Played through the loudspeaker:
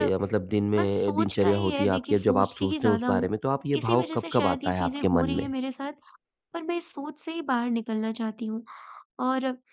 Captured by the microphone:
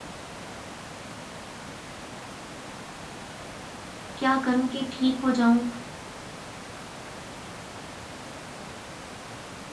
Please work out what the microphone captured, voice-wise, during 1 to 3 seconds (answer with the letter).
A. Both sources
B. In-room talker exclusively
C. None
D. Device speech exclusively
C